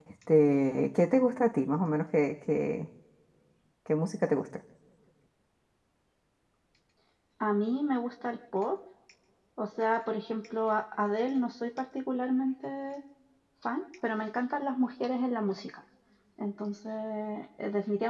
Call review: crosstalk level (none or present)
none